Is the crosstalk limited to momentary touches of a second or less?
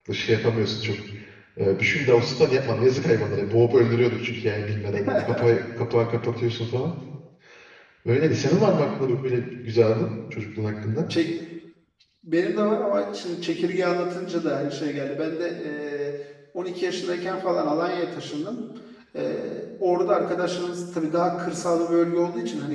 Yes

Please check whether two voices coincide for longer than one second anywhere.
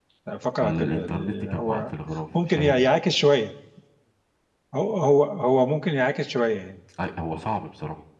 Yes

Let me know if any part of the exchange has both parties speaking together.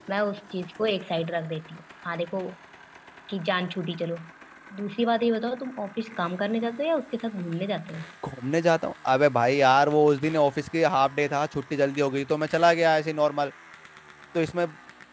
No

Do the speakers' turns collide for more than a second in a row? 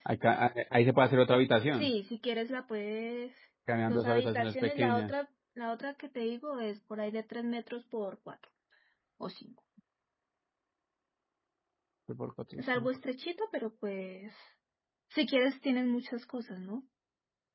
Yes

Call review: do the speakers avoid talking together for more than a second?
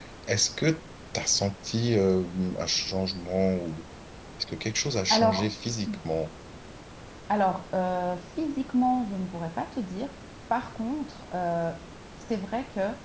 Yes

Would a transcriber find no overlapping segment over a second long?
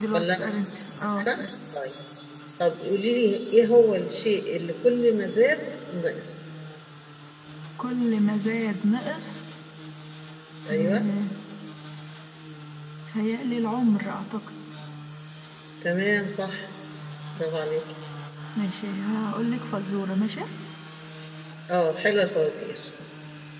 Yes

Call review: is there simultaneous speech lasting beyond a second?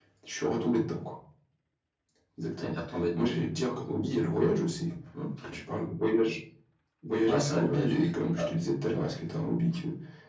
Yes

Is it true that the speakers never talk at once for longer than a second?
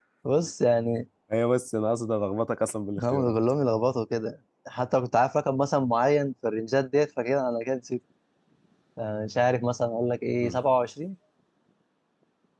Yes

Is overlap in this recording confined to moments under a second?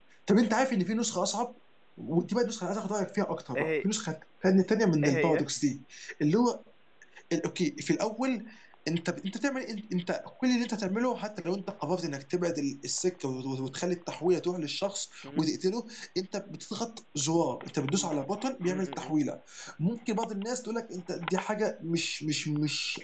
Yes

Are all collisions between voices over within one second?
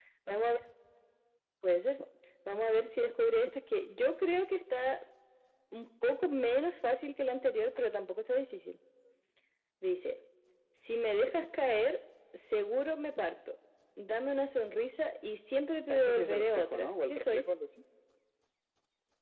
No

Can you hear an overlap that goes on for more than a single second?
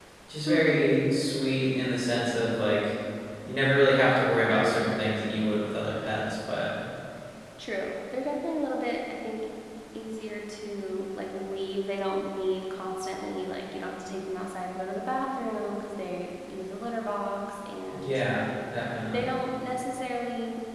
No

